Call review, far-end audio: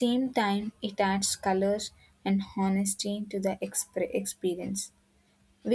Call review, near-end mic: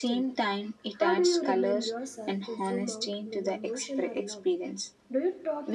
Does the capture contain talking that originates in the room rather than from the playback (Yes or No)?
Yes